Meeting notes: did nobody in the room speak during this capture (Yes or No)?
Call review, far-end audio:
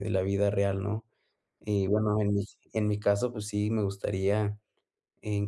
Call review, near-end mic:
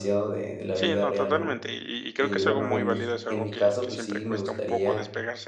No